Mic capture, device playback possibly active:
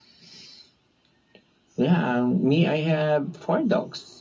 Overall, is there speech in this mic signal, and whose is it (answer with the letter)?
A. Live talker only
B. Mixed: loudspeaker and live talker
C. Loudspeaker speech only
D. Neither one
C